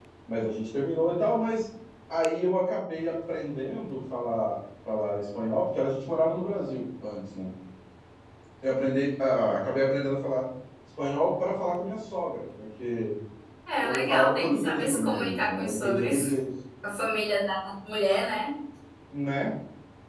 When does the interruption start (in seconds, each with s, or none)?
13.8 s